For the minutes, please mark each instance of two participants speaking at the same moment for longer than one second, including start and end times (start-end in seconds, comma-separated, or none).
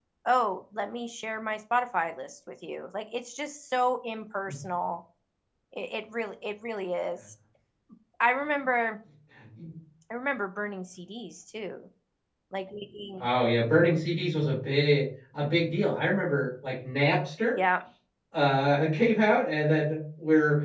none